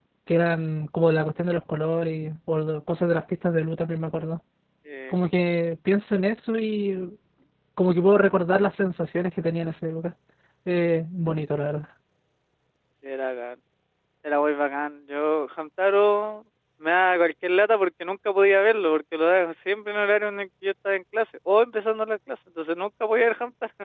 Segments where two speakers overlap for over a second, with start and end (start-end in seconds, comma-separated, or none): none